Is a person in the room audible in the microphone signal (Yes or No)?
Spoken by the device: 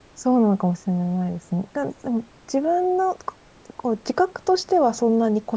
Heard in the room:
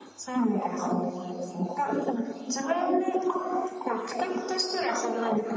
No